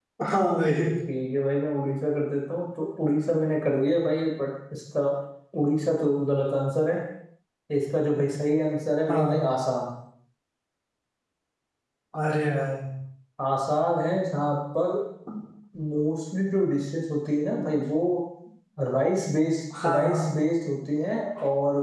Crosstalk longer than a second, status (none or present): none